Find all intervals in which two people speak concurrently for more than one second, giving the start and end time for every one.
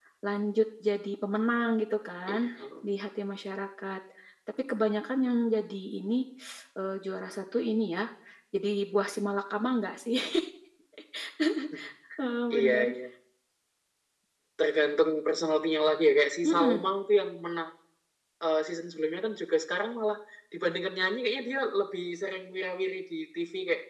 none

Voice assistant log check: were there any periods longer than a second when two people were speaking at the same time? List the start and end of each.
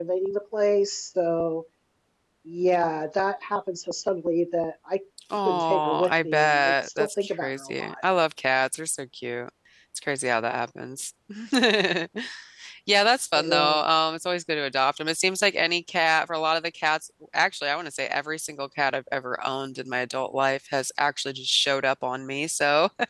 5.5-7.9

